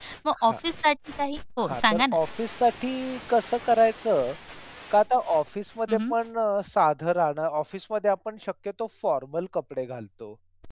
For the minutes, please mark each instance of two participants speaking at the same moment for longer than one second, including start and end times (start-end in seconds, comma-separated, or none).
none